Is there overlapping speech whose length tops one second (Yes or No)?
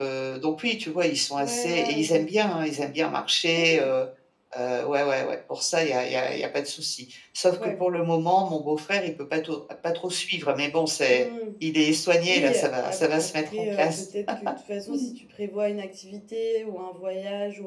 Yes